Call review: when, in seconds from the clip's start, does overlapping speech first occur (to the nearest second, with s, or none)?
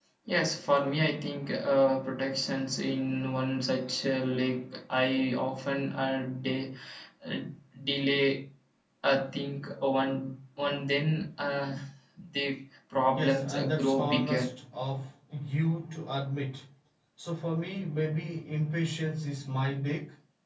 13 s